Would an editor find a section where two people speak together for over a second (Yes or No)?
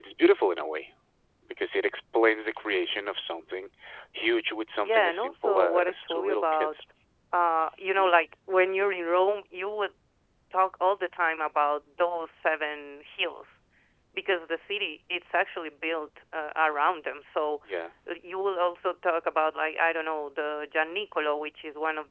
Yes